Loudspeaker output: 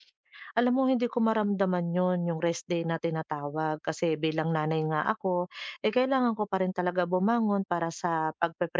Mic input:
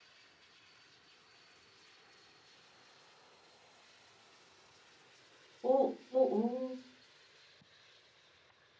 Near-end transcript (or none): oo, oo,